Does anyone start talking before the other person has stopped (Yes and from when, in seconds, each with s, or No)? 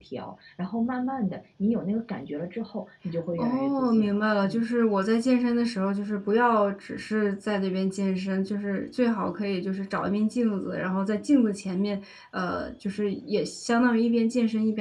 Yes, from 3.4 s